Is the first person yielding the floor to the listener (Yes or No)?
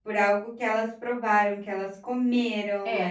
Yes